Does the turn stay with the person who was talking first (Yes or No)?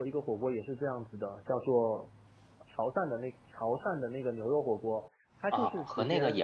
No